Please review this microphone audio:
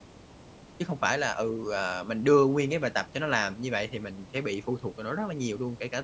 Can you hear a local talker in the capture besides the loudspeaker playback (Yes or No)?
Yes